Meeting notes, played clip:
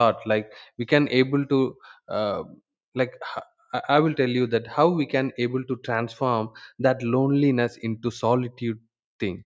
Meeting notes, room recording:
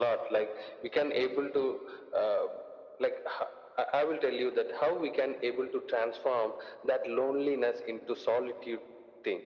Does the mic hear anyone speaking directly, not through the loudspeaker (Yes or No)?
No